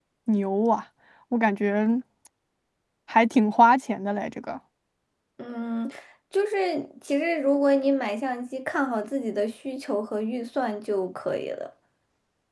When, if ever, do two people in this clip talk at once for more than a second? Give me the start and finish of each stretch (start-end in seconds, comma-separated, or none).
none